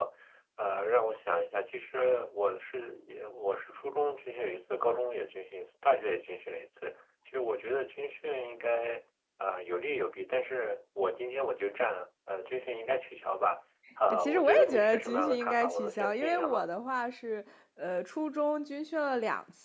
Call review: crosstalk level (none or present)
present